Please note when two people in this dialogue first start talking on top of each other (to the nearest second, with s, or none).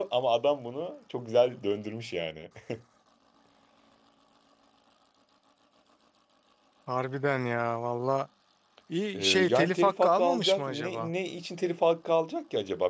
9 s